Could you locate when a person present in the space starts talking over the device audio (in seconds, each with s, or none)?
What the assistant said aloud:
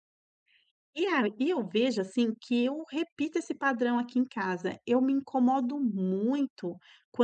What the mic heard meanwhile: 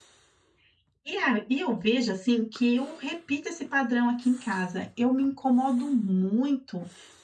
none